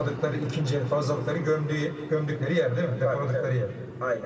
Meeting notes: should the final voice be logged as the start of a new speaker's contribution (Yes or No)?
Yes